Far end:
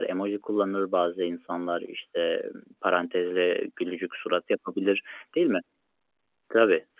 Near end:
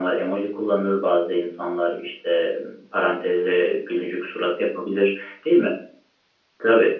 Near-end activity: none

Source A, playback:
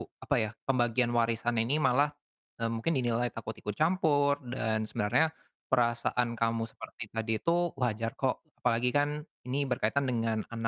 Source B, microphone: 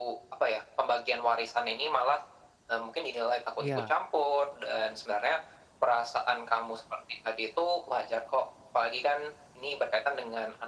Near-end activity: present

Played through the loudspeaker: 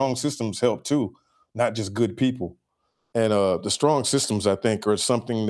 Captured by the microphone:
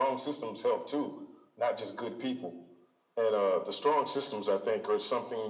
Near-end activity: none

